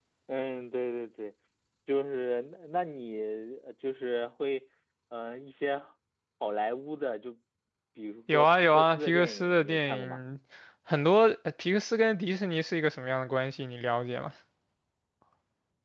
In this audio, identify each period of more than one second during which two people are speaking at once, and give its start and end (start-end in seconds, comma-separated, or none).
8.3-10.2